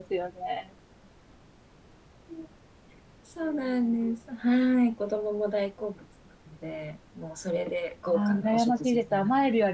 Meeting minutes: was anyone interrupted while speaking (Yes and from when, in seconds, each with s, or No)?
Yes, from 8.1 s